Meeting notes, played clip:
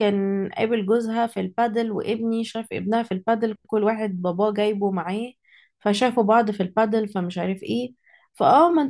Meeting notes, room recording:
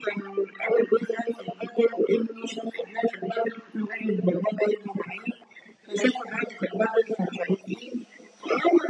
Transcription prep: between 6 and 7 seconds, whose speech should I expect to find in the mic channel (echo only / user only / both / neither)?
echo only